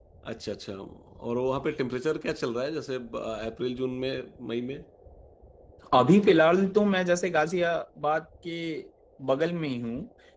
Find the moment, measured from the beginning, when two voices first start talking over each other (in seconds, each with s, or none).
none